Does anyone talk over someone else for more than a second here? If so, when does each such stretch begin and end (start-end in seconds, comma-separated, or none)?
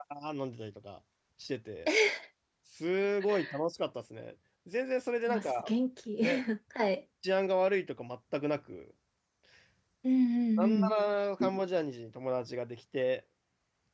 none